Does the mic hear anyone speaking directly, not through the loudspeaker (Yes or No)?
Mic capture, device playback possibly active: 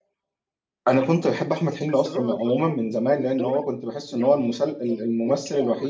Yes